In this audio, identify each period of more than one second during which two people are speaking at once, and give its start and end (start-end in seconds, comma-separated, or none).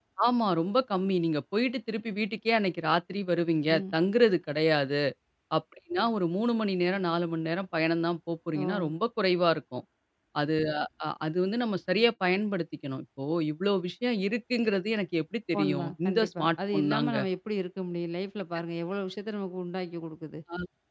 15.5-17.2